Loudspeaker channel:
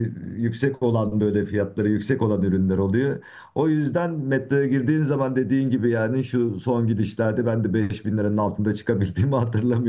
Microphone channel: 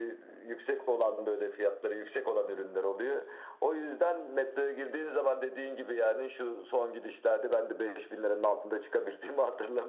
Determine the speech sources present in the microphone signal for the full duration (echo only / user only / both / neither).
echo only